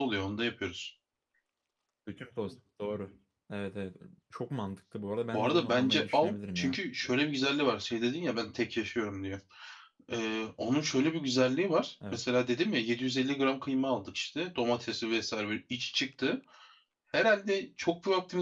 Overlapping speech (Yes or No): Yes